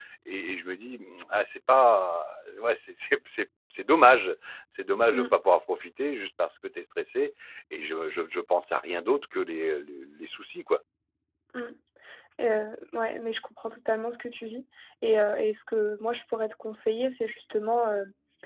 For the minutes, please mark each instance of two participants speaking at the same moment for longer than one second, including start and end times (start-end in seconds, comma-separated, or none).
none